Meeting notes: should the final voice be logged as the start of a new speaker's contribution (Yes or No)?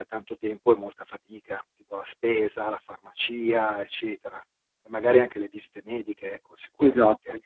Yes